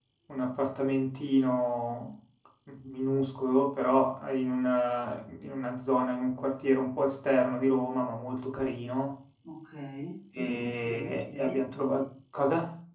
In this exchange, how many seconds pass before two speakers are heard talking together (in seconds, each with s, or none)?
10.4 s